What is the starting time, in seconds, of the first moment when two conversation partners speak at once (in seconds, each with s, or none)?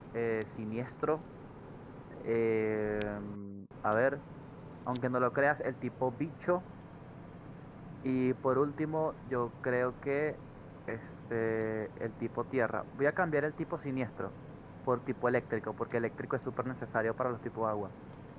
none